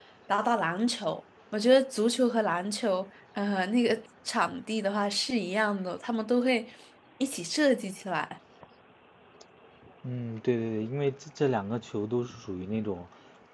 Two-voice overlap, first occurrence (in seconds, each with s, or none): none